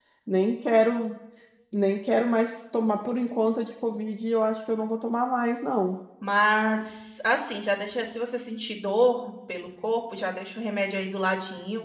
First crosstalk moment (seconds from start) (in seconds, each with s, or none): none